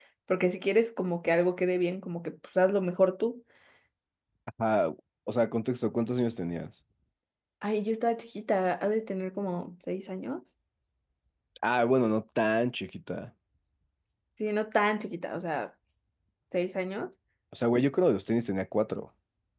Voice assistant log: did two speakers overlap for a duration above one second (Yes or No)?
No